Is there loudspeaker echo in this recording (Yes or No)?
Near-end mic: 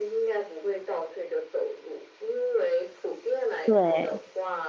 Yes